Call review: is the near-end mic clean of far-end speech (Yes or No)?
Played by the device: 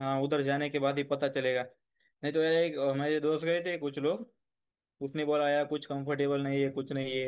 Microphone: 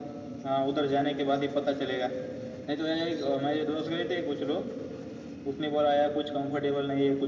No